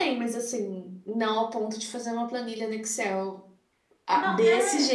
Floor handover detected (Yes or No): No